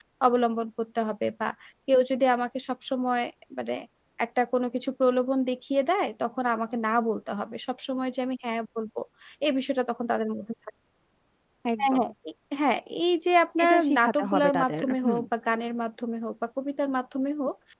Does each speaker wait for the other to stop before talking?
No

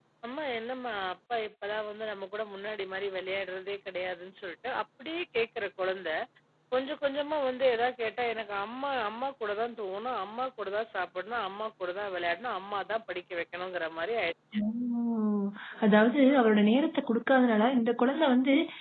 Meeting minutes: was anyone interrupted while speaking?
No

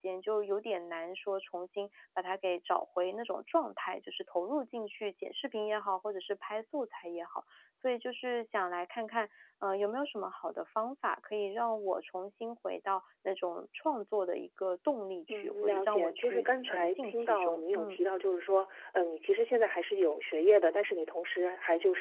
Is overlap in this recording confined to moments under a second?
No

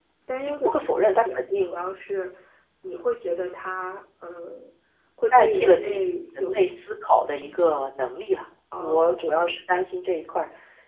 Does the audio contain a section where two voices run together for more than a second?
Yes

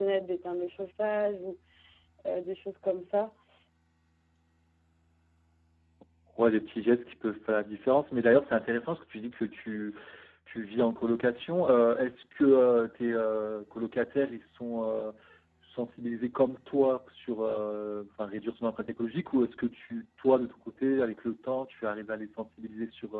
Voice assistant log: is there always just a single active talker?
Yes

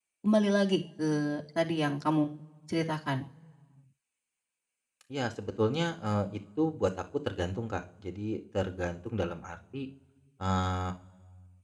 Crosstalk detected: No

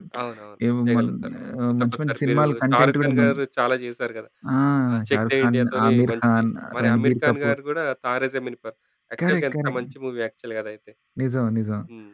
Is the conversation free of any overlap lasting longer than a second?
No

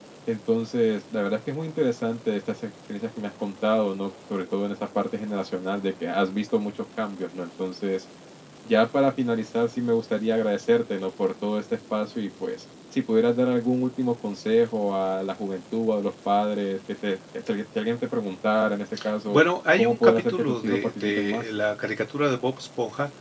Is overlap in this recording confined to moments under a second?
No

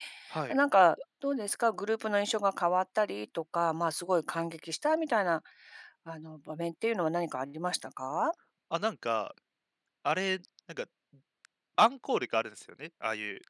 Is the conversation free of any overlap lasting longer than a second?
Yes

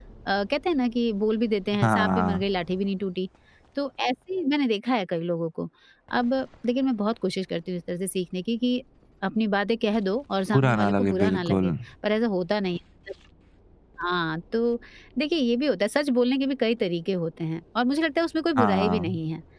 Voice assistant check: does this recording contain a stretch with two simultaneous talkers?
Yes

